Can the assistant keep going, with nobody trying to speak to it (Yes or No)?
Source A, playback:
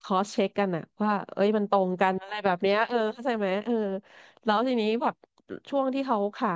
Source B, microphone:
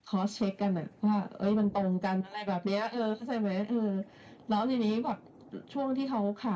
Yes